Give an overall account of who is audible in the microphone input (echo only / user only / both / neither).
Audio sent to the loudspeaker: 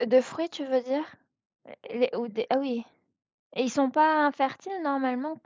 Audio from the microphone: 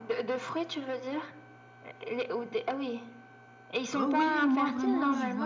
both